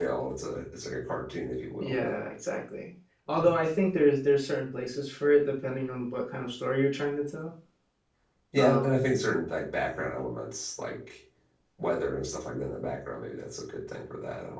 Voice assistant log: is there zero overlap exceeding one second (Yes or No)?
Yes